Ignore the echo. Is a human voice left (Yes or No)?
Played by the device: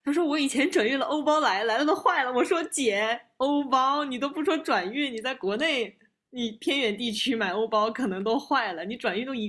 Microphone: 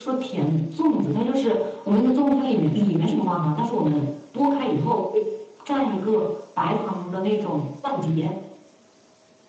Yes